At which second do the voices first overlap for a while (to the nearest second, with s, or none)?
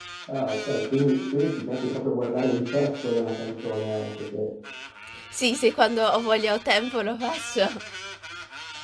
none